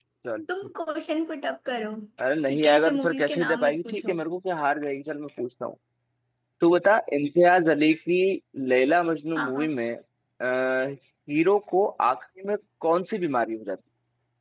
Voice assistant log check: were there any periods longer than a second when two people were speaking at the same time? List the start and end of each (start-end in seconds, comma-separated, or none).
2.5-4.2